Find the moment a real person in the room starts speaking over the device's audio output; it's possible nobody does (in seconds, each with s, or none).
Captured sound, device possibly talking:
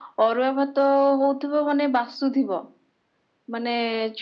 none